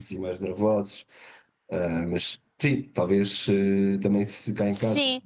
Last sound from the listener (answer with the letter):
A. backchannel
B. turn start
A